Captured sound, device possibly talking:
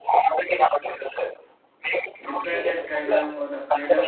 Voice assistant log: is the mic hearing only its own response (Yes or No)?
No